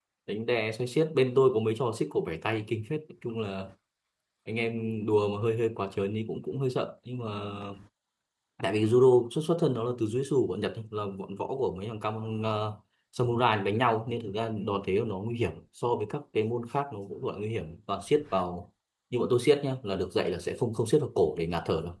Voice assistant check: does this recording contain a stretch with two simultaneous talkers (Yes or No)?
No